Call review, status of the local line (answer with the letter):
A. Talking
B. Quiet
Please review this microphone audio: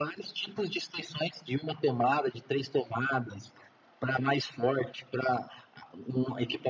B